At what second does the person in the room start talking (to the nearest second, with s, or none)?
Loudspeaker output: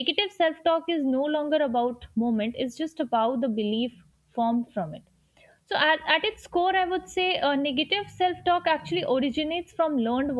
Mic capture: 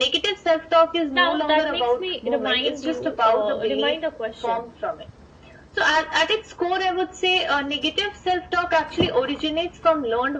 1 s